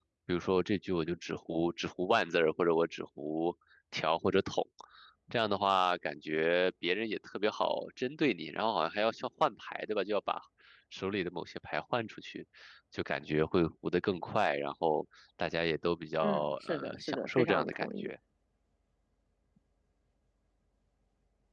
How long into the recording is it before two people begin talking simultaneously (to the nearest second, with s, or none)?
16 s